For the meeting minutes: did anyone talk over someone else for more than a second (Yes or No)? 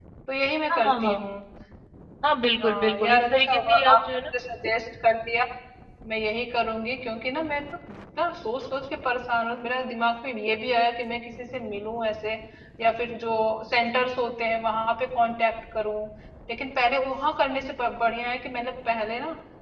Yes